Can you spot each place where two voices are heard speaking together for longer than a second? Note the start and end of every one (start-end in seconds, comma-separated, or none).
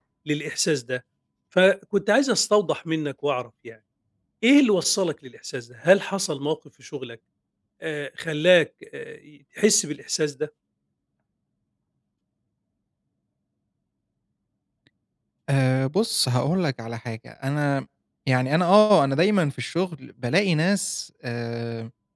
none